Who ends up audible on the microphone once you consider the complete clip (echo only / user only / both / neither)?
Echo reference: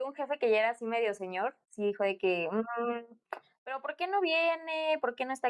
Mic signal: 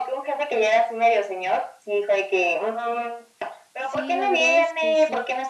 both